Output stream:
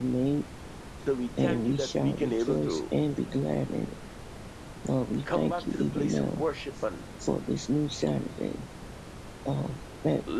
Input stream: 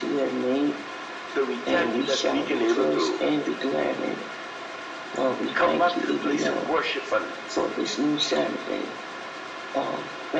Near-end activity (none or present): none